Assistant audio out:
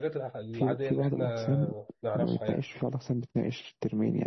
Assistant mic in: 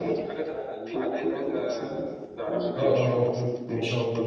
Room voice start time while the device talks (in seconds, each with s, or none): 2.8 s